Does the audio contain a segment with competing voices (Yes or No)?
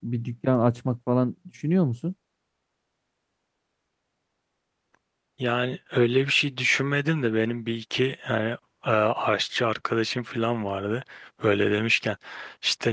No